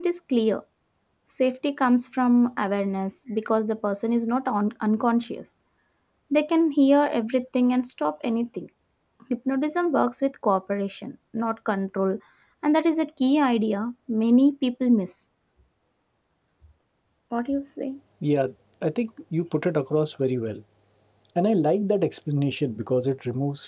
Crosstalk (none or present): none